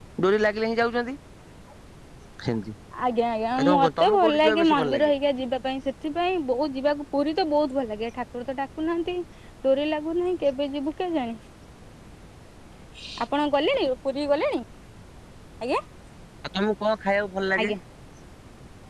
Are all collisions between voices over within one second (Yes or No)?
No